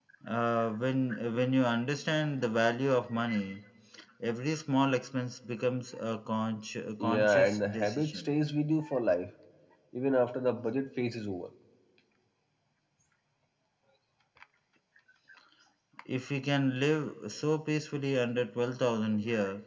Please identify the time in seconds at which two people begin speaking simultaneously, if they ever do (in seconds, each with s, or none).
7.0 s